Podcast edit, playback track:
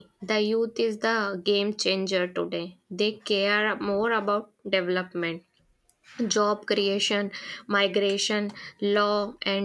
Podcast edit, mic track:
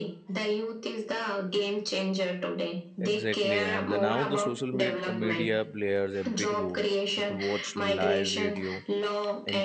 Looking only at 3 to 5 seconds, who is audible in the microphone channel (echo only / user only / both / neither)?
both